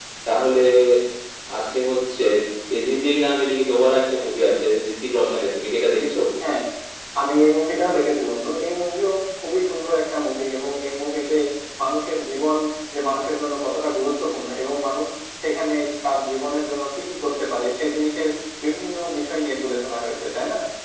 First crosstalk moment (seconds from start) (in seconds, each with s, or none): none